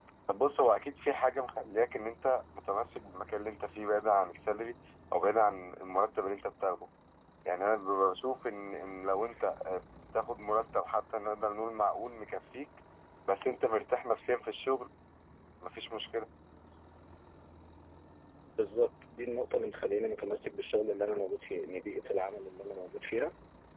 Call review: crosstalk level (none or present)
none